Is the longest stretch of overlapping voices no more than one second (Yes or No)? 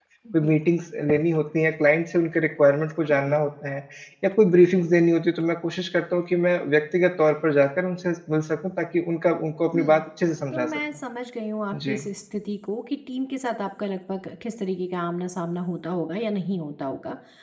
Yes